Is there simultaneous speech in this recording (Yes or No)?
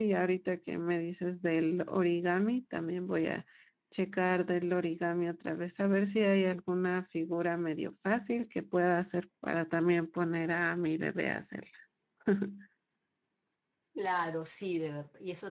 No